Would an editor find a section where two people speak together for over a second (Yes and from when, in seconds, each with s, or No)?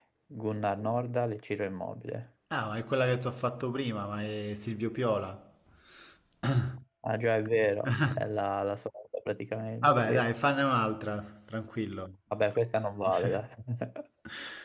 No